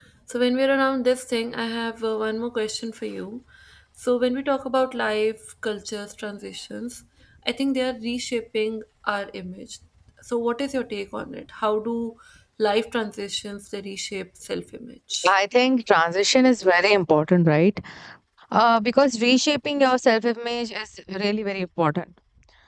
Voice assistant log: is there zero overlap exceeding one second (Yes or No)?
Yes